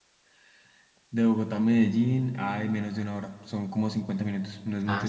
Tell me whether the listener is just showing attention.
No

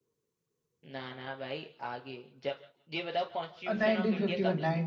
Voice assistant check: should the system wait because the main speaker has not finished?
No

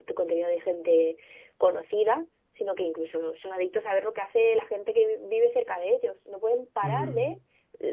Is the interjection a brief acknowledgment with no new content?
Yes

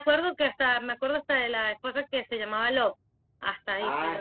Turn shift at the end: Yes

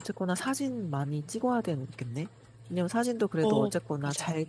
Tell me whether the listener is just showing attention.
Yes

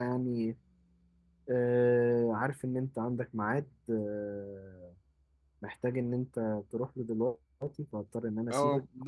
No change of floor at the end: No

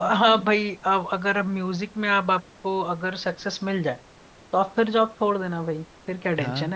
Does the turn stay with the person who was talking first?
No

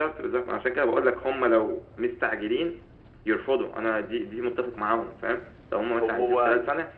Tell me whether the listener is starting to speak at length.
No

